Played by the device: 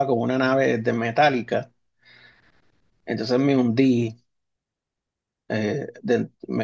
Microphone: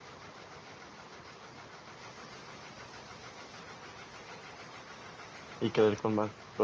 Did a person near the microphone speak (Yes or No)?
Yes